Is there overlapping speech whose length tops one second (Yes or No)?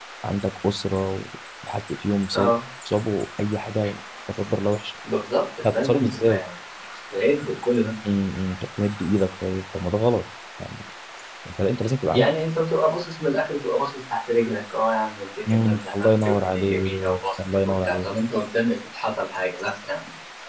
Yes